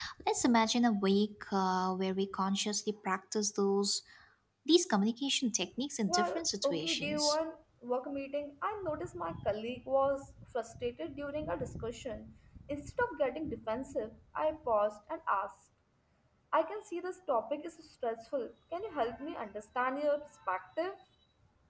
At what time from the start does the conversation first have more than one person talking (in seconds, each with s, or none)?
6.1 s